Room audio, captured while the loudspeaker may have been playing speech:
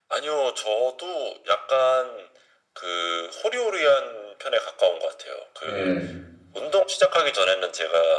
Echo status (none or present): present